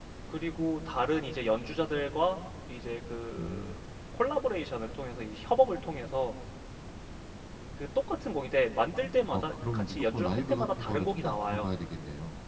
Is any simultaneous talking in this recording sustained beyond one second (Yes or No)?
Yes